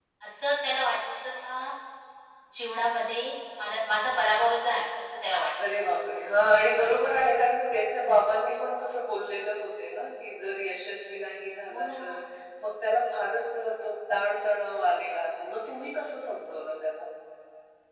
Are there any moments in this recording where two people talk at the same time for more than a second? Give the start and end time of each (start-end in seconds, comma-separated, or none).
none